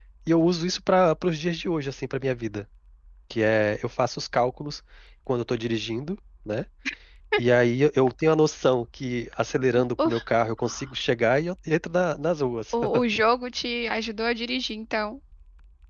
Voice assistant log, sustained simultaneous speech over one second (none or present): none